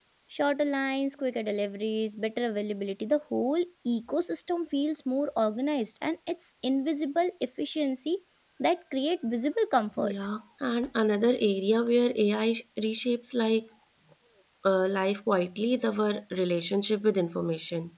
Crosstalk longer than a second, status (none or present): none